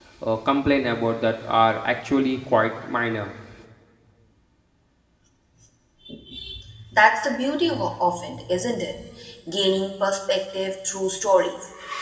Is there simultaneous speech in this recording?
No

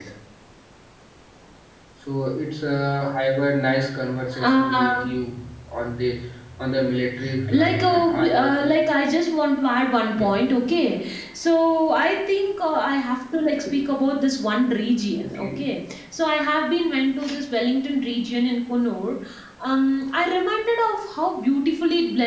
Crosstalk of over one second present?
Yes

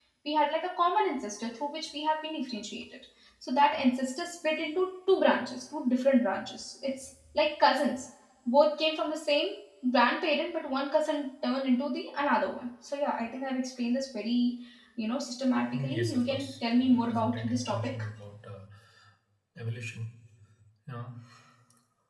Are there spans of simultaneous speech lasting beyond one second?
Yes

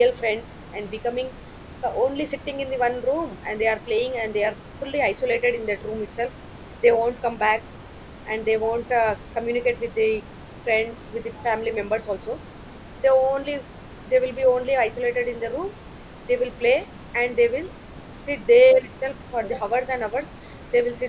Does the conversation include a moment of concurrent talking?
No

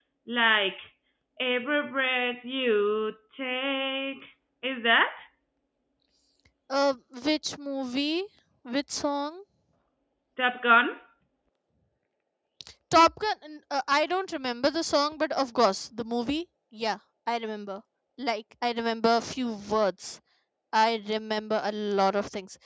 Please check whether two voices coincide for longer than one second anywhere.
No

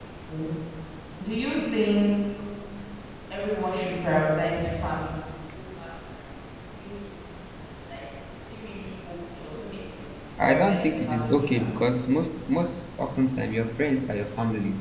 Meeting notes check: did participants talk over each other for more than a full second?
Yes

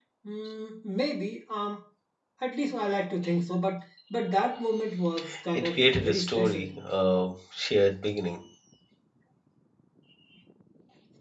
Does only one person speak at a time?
No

